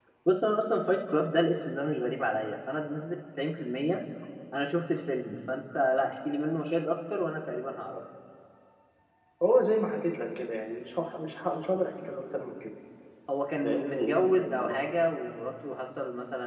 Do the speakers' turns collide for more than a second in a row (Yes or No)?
Yes